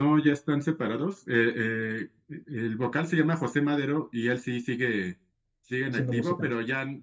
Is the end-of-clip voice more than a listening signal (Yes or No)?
No